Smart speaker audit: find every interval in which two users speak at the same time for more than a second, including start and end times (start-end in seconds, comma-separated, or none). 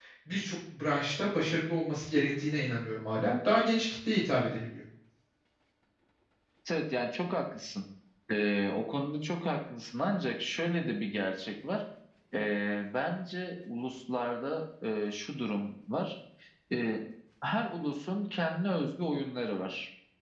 none